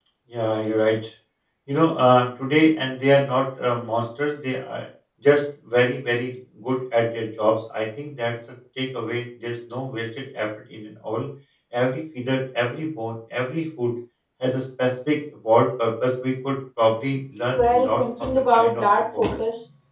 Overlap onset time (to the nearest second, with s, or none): 18 s